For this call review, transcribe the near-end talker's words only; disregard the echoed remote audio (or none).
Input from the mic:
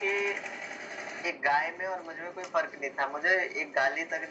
none